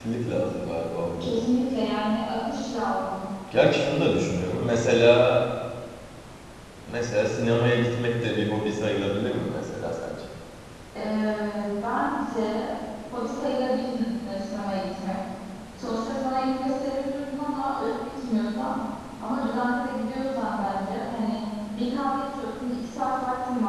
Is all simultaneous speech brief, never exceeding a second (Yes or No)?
Yes